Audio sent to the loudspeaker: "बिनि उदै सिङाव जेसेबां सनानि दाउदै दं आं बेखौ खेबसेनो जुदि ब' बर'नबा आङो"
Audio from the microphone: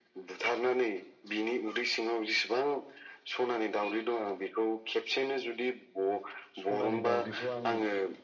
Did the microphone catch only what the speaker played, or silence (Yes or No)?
No